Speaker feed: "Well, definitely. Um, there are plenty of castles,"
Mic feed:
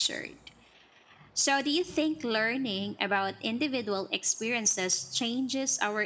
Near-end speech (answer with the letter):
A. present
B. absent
A